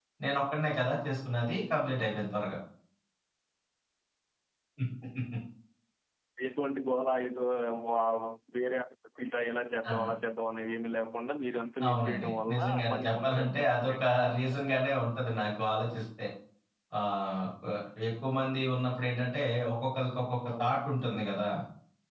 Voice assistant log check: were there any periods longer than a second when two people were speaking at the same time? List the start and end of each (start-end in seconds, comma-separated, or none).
11.9-14.6